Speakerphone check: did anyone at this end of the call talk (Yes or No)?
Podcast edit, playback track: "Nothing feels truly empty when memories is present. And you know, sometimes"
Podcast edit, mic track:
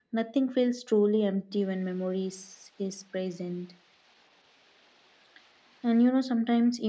No